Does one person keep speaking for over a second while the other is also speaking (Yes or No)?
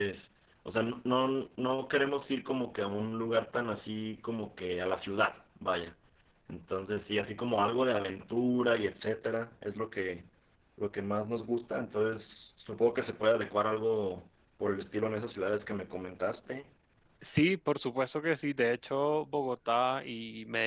No